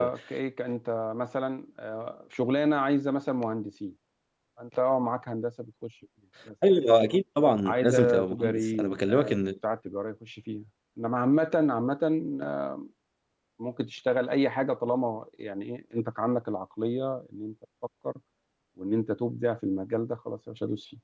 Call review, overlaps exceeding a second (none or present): present